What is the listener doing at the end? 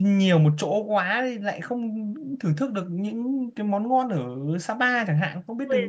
taking over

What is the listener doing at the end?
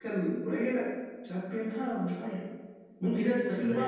listening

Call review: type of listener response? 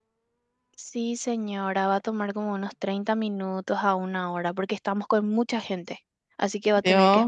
taking over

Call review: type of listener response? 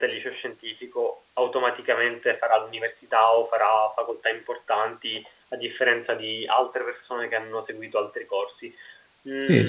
taking over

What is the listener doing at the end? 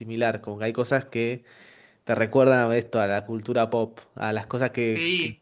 taking over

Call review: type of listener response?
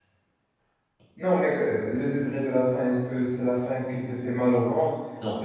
listening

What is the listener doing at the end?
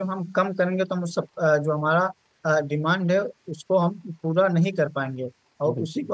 listening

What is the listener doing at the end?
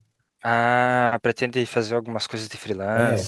taking over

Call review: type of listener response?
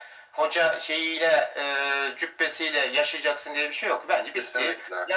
listening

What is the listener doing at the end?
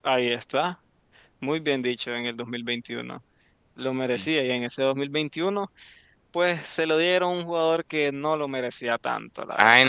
taking over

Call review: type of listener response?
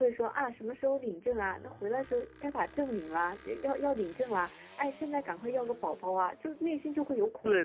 taking over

